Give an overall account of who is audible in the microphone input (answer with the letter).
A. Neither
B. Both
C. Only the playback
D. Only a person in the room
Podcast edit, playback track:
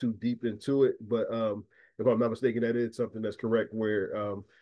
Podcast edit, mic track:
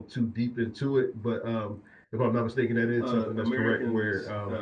B